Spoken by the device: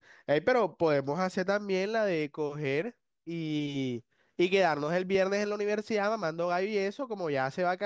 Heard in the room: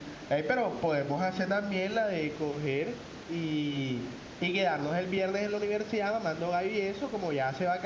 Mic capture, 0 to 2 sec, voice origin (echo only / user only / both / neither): echo only